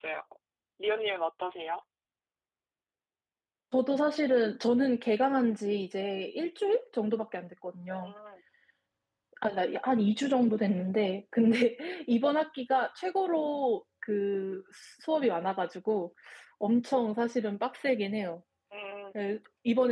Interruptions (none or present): none